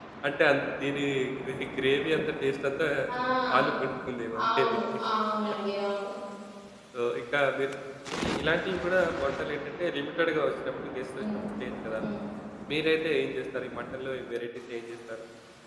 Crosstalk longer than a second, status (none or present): none